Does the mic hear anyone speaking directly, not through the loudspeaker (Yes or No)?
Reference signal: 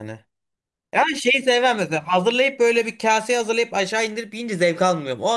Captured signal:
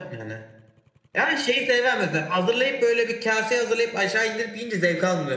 No